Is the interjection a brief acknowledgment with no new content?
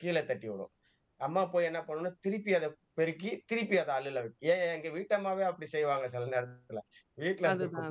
Yes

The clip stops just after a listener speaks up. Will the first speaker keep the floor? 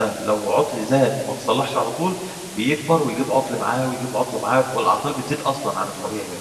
No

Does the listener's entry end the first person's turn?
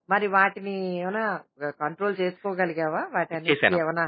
Yes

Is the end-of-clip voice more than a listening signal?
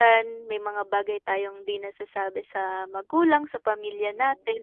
Yes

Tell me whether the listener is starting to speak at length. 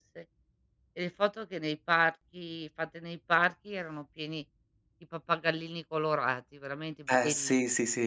Yes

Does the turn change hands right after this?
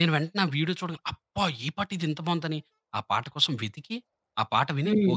No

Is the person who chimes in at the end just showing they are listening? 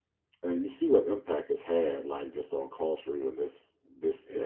Yes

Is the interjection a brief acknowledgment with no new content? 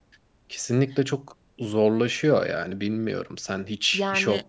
Yes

